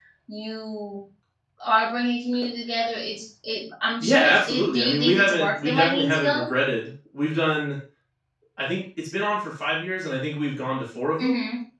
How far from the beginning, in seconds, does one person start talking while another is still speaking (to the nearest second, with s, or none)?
4 s